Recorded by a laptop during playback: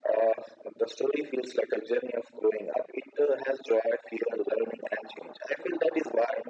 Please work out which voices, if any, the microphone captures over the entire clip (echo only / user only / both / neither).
echo only